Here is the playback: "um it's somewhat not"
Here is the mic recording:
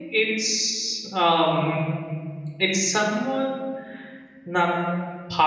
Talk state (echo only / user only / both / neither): echo only